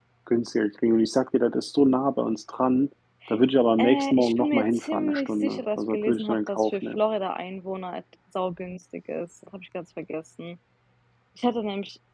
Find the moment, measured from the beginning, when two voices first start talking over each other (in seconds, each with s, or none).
3.8 s